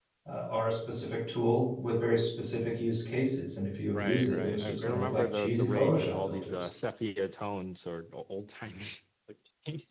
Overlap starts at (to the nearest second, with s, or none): 4 s